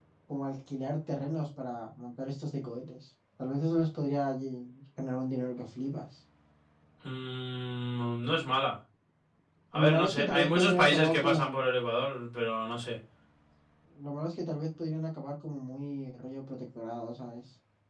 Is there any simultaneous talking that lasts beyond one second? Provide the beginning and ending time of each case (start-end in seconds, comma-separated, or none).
9.7-11.6